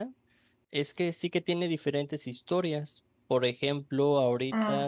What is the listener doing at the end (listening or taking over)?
listening